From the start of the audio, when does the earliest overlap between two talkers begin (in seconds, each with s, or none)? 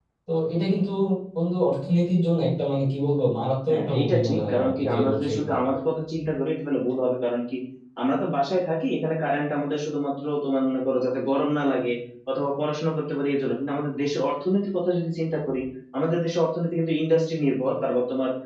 3.7 s